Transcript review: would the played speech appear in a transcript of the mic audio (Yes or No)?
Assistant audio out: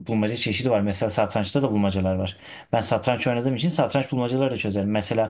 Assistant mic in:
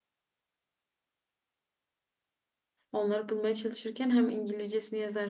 No